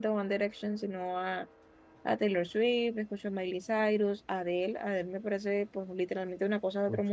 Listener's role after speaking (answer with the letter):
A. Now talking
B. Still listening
A